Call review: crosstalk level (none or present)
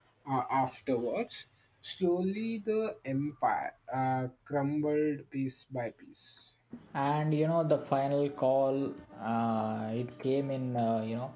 none